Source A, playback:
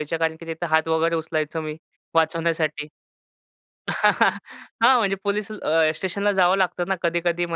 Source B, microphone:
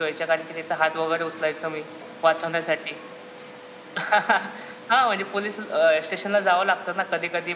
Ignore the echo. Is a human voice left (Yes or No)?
No